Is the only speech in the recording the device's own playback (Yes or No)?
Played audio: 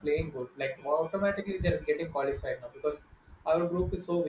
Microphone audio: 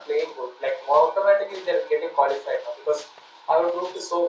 Yes